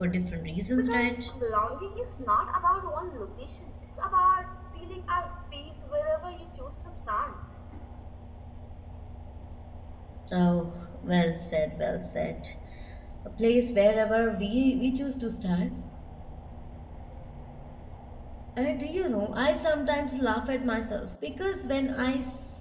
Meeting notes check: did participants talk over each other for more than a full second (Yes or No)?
No